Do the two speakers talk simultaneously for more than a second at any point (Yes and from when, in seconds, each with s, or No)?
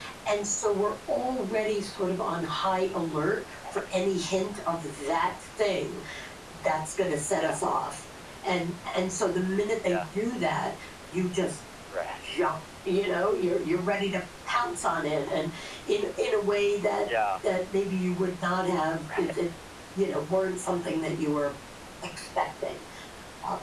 No